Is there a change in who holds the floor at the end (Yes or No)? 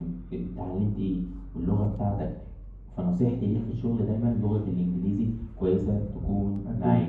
Yes